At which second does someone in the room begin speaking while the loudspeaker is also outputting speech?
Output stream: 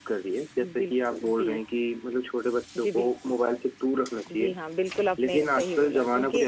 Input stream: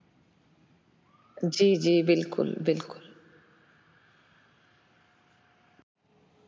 1.4 s

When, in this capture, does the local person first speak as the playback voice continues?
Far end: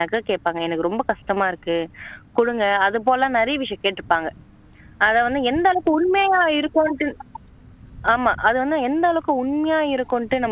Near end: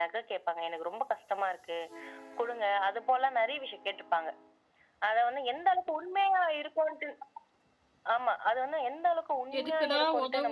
9.6 s

